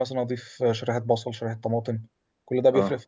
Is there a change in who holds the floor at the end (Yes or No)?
Yes